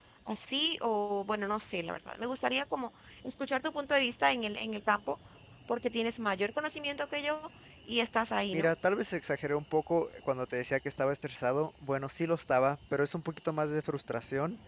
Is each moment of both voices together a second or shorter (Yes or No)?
Yes